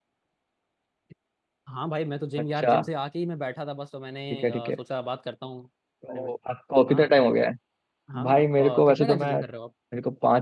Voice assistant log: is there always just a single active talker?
No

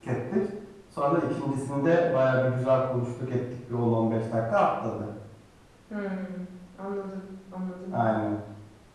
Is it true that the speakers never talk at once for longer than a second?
Yes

